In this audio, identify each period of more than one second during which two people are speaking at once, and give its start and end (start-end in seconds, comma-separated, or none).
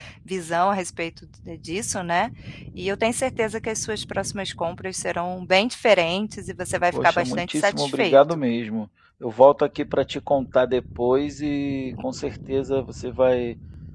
6.9-8.4